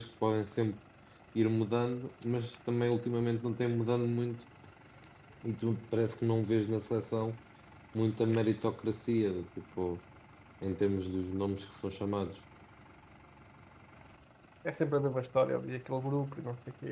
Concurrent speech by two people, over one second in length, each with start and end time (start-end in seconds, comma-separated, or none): none